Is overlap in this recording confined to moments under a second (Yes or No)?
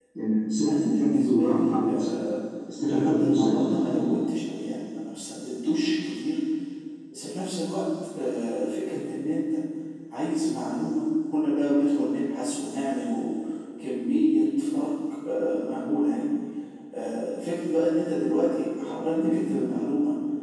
No